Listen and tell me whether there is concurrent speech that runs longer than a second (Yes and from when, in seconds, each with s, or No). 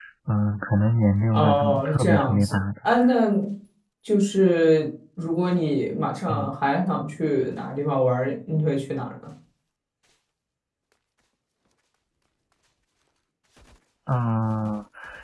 Yes, from 1.3 s